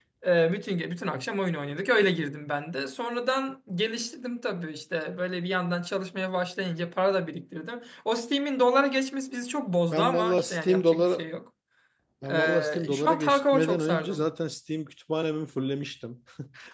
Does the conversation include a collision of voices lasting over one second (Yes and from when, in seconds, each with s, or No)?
Yes, from 9.9 s